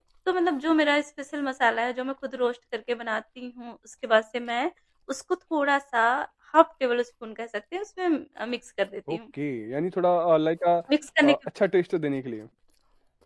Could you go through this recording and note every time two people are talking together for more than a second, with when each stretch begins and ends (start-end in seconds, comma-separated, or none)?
none